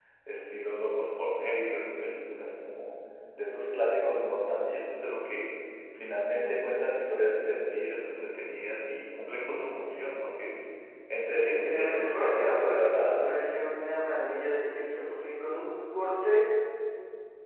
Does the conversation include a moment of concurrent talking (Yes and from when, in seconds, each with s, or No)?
Yes, from 11.3 s